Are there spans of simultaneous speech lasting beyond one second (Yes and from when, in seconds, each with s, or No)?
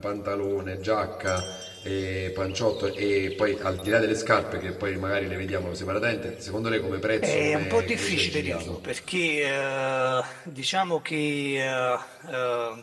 Yes, from 7.2 s